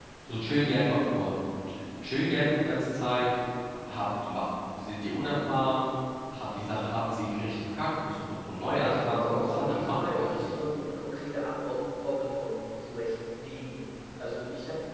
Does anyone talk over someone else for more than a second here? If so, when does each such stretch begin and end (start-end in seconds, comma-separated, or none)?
8.8-10.5